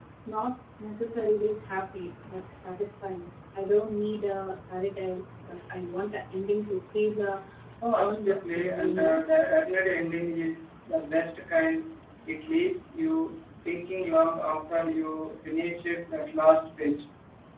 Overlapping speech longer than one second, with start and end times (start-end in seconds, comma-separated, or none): 7.9-9.2